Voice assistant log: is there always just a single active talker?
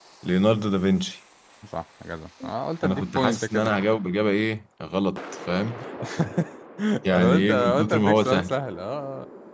No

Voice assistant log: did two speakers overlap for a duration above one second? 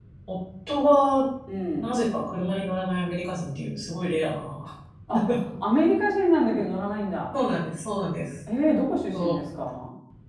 No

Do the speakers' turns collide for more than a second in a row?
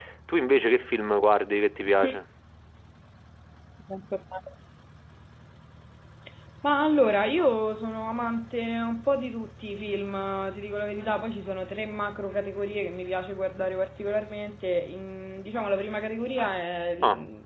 No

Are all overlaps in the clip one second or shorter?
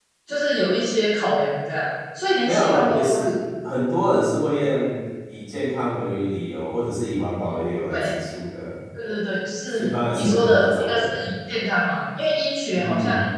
No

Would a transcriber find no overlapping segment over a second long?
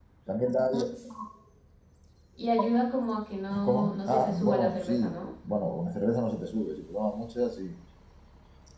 No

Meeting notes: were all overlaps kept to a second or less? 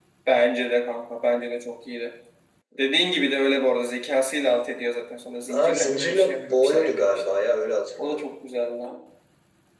No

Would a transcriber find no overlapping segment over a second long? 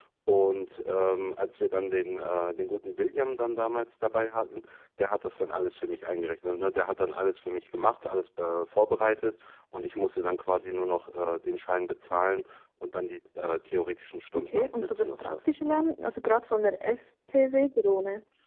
No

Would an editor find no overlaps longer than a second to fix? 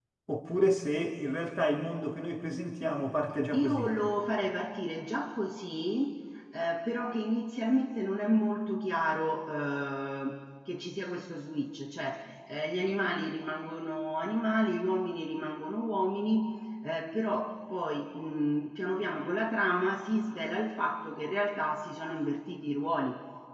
Yes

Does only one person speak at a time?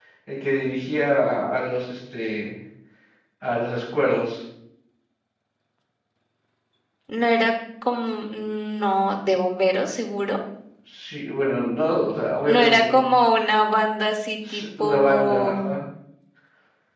No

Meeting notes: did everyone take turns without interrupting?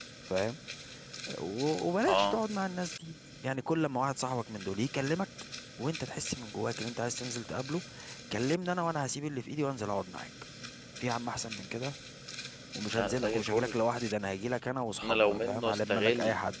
No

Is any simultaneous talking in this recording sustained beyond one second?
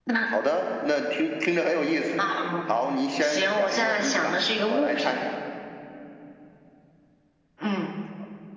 Yes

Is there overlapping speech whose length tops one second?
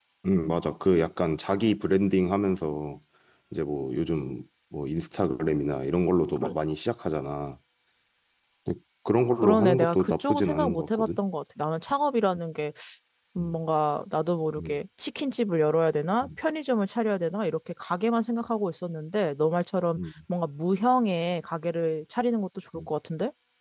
Yes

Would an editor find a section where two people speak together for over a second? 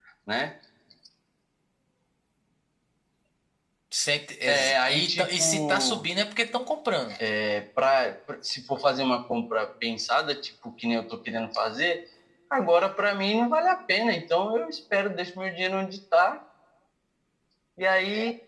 Yes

